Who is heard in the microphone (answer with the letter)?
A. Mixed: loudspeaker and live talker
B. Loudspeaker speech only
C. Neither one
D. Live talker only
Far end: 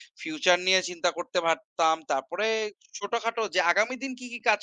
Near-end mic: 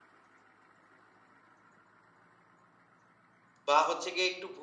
D